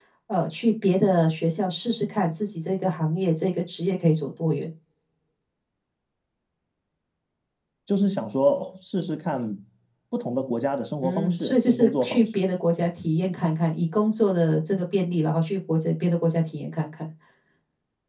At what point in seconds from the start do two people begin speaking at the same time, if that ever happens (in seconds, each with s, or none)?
11.0 s